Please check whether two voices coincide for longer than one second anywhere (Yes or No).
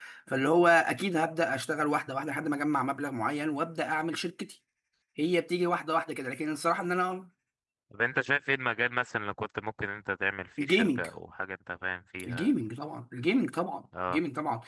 No